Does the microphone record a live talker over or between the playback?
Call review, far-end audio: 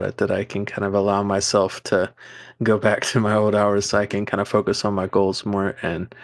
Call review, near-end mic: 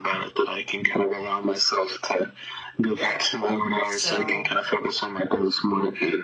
Yes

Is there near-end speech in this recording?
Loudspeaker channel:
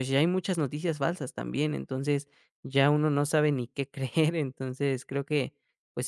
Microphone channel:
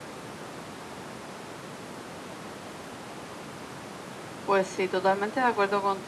Yes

